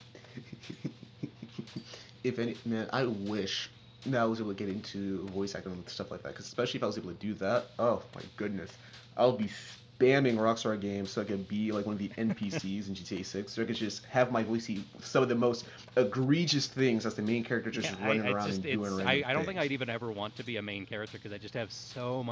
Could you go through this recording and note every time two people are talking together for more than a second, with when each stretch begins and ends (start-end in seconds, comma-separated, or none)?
17.7-19.7